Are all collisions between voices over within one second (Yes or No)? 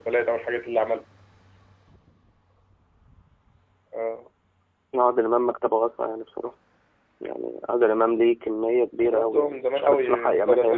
No